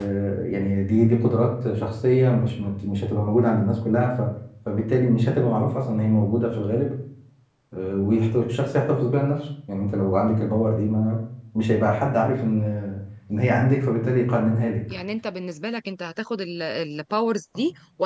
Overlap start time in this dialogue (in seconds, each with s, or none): none